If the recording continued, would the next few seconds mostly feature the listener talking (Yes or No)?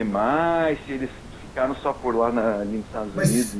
Yes